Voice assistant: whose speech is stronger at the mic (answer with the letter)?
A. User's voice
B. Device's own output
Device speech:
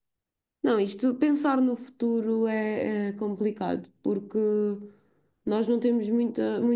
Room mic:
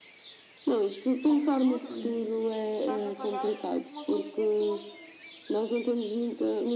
B